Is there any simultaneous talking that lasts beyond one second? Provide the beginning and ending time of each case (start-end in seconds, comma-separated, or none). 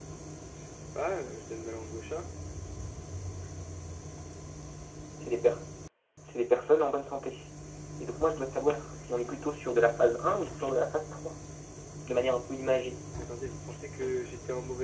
none